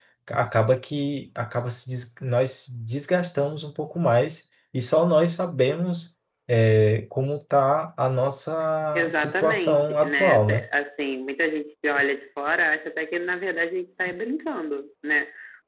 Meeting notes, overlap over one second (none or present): present